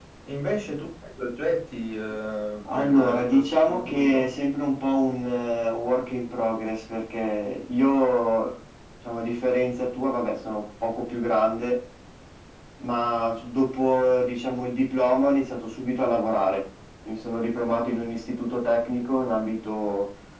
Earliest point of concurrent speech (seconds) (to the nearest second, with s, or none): 3 s